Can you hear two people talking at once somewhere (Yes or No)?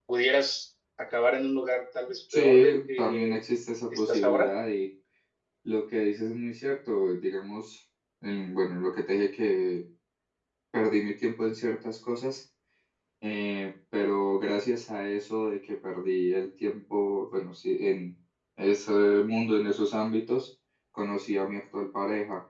Yes